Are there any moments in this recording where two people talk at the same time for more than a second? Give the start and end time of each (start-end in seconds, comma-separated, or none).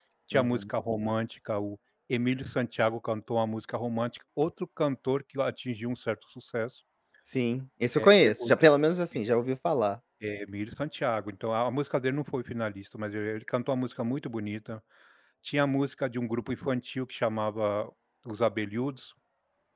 none